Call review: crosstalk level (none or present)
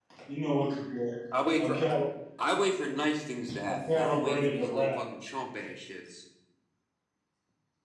present